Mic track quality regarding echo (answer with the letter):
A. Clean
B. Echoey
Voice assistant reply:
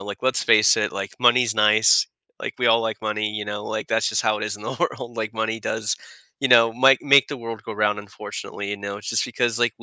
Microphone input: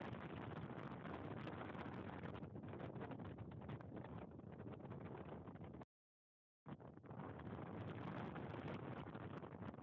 A